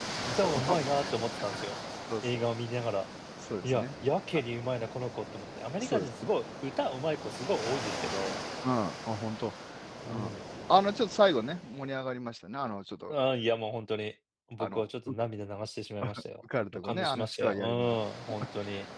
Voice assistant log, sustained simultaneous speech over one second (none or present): present